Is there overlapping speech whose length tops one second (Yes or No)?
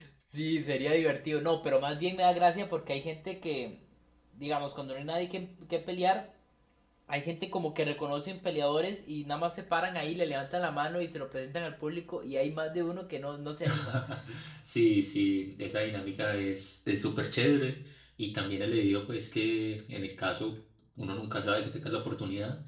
No